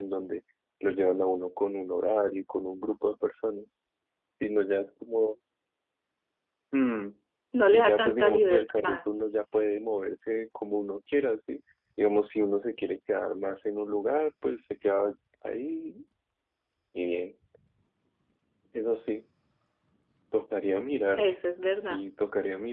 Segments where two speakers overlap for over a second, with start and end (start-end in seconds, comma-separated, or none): 7.7-9.0